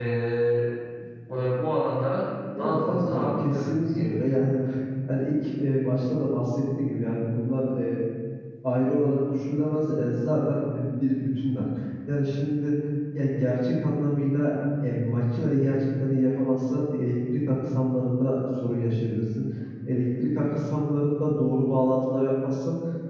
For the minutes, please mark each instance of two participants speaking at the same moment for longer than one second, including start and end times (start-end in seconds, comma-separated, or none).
2.6-4.4